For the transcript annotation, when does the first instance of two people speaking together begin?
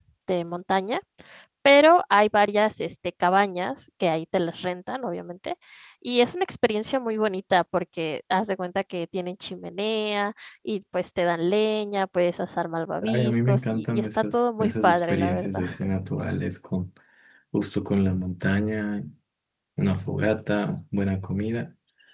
13.0 s

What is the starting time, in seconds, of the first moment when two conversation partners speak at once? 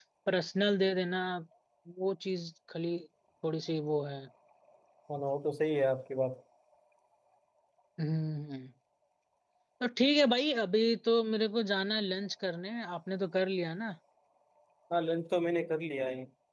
none

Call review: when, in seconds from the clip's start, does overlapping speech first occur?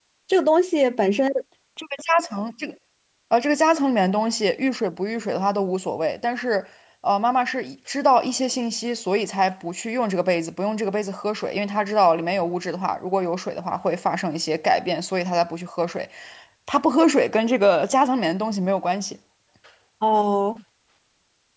none

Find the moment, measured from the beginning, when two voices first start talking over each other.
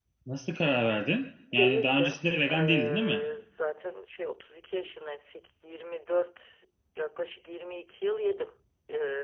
1.5 s

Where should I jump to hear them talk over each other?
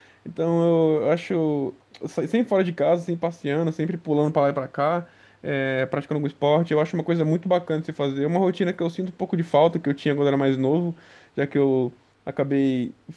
none

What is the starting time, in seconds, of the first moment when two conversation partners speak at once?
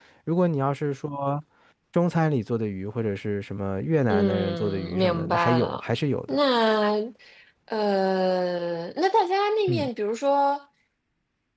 4.1 s

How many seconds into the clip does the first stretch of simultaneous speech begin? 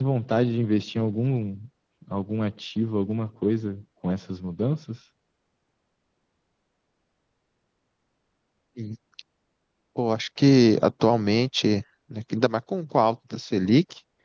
none

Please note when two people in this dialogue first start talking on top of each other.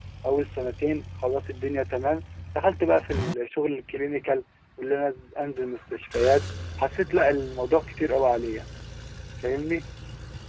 none

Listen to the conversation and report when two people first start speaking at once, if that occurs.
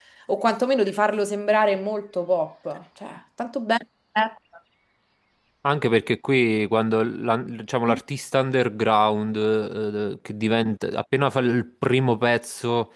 none

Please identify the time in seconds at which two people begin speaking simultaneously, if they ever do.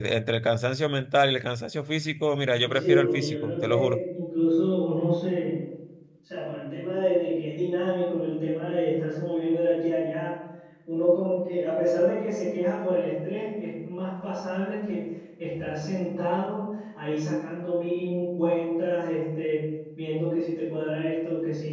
2.6 s

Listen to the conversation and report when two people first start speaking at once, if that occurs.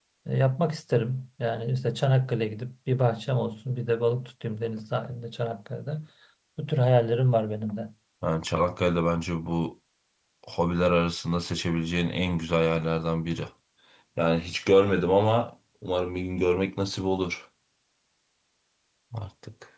none

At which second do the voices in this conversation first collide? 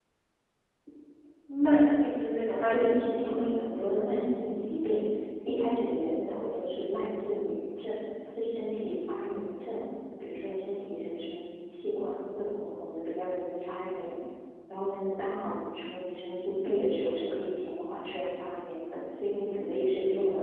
2.7 s

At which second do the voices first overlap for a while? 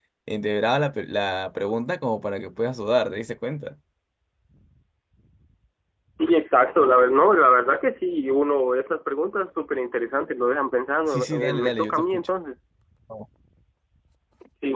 11.1 s

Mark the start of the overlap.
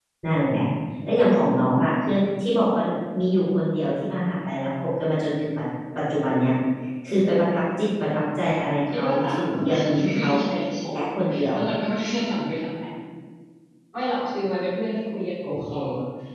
8.9 s

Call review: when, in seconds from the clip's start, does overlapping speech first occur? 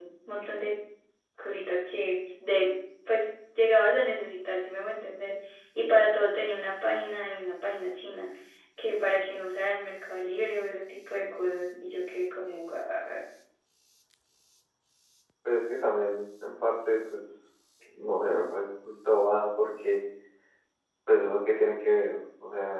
none

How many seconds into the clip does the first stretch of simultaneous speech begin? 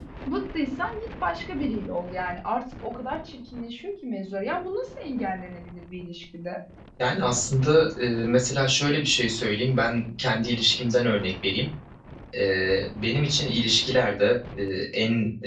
none

